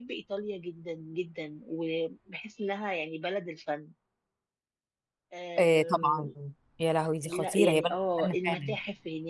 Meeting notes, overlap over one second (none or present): present